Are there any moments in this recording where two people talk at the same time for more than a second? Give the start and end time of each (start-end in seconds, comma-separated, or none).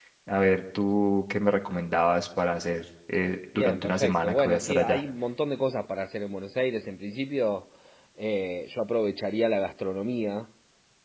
3.6-5.0